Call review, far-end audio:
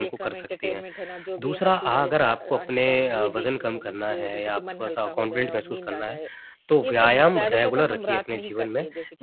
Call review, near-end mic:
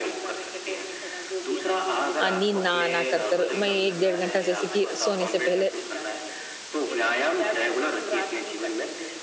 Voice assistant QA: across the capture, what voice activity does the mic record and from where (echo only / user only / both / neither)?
both